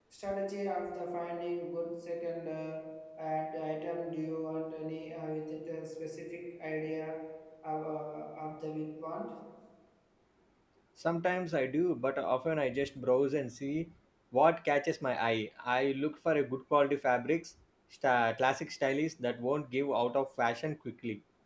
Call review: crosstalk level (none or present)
none